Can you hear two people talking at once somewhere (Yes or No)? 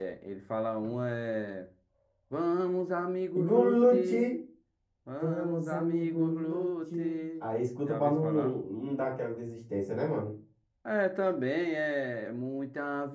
Yes